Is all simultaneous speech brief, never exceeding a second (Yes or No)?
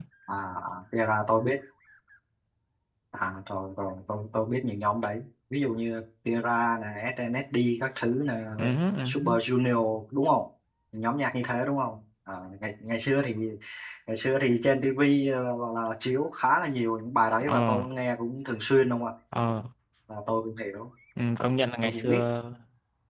Yes